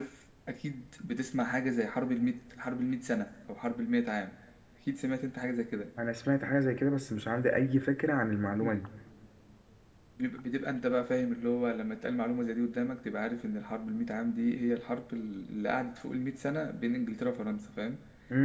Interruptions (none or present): none